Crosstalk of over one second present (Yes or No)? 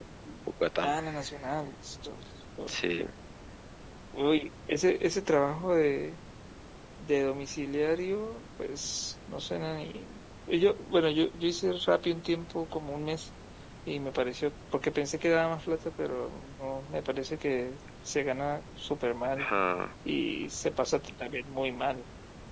No